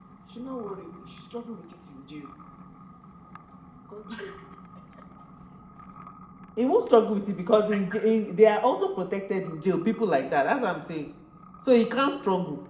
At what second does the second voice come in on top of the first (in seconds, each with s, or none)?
none